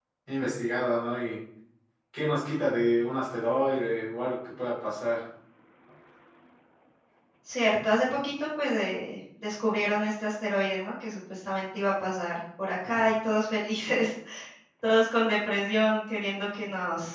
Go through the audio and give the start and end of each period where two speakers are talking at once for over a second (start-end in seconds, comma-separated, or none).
none